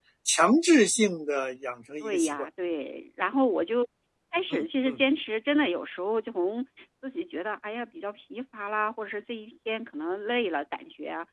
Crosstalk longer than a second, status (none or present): none